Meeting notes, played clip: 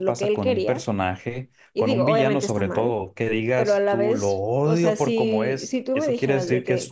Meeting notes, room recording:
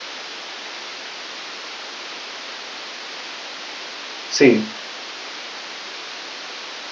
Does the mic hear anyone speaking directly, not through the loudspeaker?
Yes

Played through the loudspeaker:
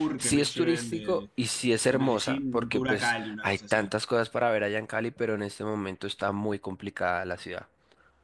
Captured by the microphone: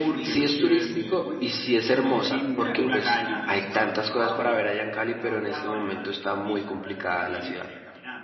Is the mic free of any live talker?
No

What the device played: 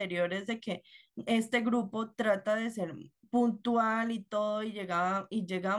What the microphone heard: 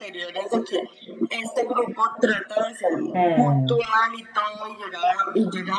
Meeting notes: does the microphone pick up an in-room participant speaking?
Yes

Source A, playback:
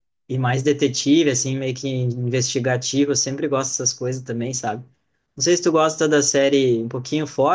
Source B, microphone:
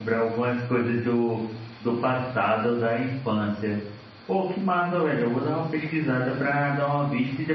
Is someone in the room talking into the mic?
Yes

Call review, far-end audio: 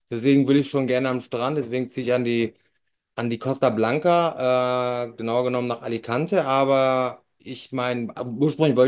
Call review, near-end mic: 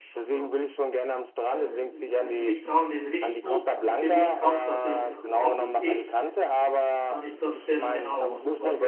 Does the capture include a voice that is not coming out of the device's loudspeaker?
Yes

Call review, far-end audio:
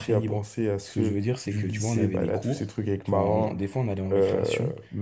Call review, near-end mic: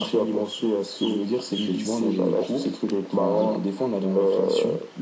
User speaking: No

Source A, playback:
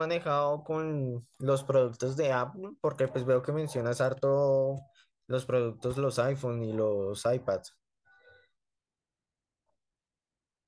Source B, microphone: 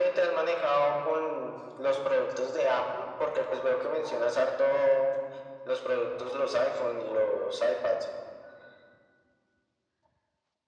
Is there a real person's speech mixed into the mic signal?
No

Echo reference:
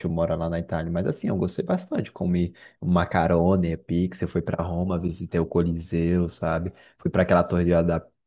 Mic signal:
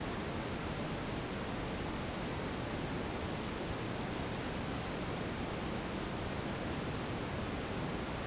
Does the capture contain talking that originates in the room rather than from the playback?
No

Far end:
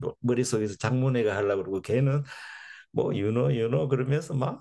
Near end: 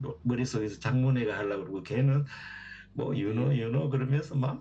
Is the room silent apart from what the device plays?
No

